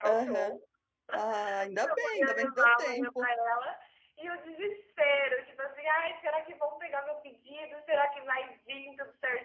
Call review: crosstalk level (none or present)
present